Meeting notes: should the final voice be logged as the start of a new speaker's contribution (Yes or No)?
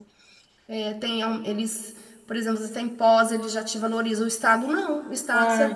No